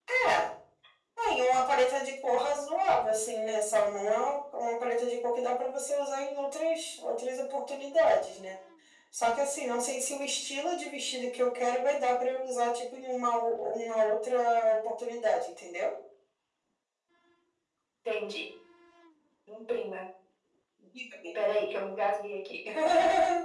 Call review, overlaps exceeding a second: none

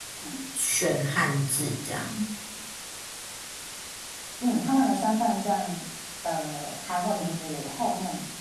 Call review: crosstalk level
none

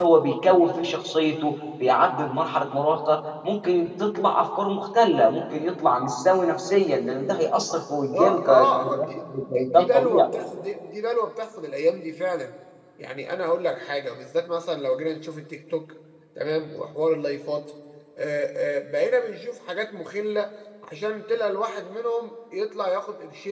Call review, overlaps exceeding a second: present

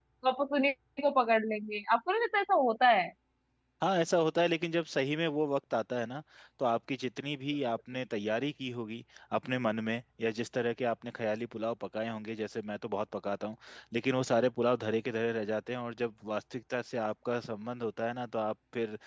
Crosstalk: none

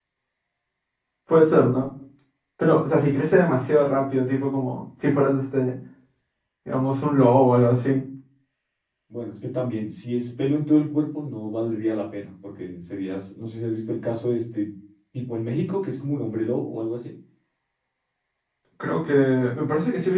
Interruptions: none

